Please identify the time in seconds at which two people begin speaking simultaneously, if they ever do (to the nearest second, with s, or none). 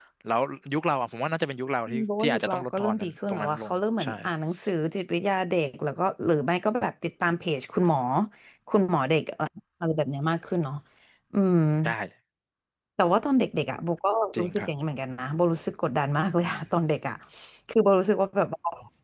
2 s